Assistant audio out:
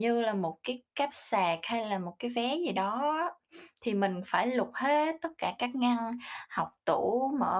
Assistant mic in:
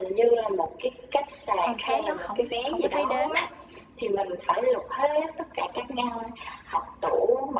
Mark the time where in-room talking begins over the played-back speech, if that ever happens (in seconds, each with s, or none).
1.6 s